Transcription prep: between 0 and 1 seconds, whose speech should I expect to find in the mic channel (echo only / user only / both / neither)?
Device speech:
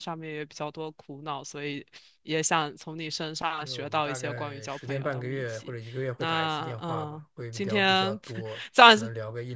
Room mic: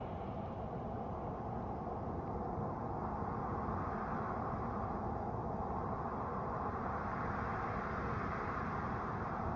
neither